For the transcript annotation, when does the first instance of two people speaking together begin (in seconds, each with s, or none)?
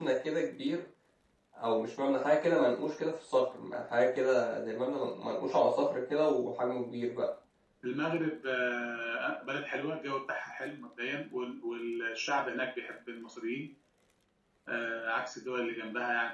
none